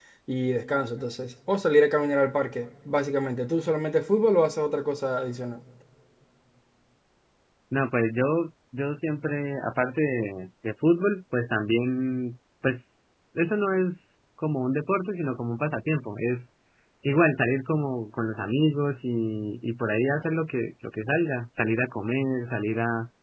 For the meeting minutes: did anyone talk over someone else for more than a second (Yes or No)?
No